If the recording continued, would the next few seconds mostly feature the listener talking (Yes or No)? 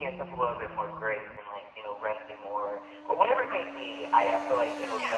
No